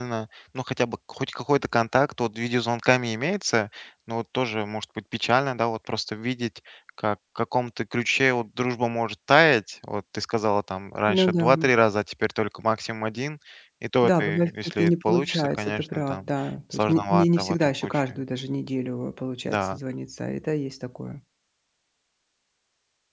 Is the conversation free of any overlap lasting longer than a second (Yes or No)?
No